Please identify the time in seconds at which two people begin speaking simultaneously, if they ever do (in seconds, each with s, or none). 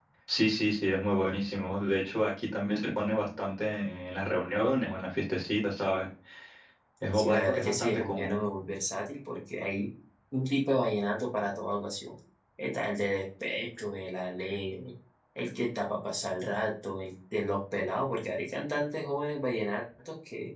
7.1 s